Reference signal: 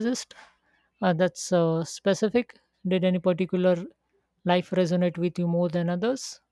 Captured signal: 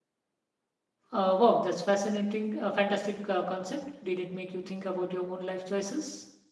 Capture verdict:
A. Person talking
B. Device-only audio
A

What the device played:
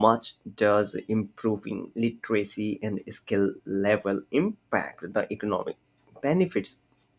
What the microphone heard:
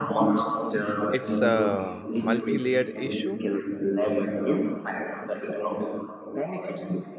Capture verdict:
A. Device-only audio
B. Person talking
B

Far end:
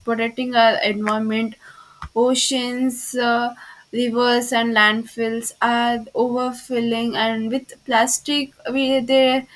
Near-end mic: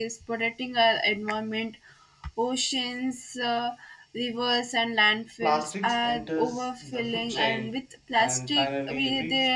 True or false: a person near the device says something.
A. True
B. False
A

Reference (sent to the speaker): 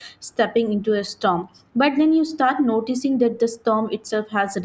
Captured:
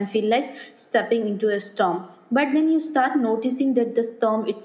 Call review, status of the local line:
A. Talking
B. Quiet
B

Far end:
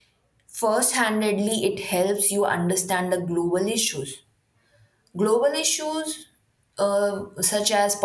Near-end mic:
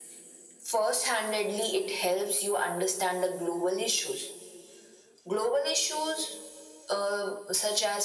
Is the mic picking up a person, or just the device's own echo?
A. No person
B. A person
A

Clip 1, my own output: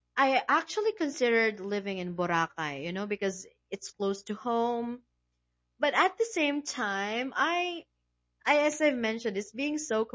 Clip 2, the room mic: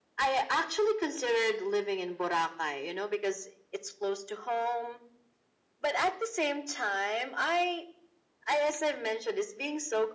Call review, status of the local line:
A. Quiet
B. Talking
A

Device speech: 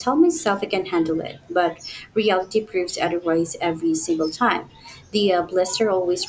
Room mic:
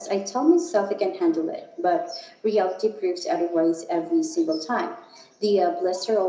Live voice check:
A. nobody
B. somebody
A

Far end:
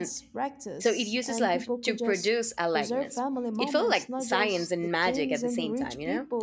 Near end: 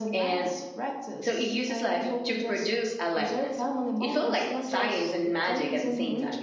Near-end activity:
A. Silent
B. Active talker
A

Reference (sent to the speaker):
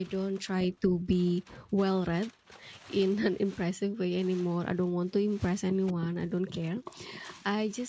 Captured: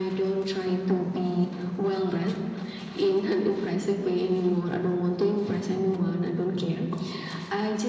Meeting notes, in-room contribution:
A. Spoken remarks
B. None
B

